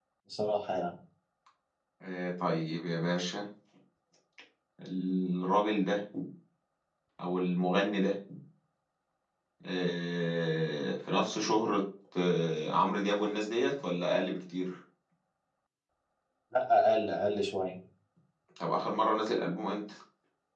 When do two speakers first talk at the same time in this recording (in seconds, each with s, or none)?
none